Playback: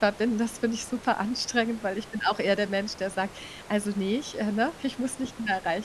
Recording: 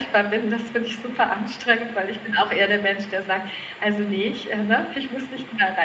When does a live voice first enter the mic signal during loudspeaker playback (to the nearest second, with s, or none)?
none